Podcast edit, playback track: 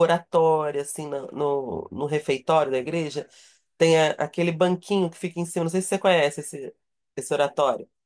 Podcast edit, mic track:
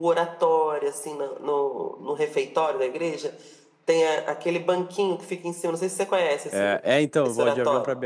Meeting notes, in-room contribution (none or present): present